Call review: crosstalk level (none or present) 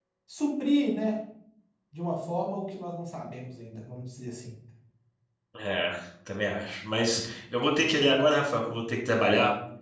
none